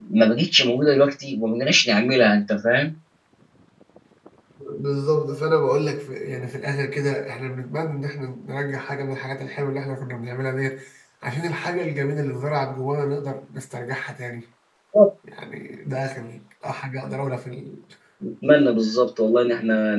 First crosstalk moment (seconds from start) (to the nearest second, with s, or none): none